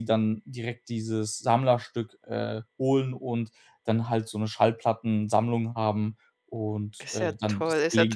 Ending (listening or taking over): taking over